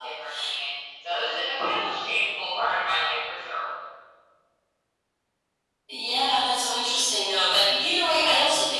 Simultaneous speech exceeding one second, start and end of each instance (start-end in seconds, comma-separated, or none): none